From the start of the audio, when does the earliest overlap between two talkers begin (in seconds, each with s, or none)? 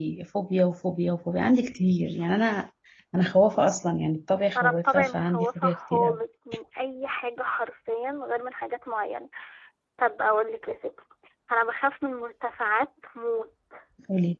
4.5 s